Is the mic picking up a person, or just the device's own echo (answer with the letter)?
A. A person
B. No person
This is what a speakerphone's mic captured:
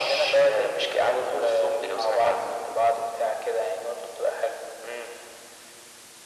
B